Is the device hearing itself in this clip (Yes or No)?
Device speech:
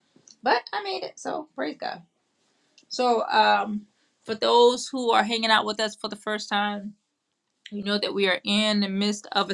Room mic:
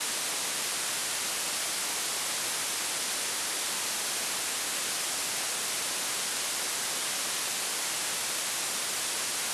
No